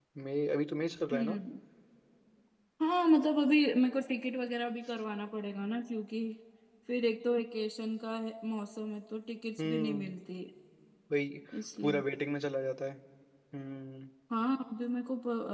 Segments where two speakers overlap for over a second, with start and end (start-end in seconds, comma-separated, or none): none